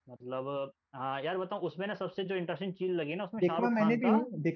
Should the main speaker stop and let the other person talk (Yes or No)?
Yes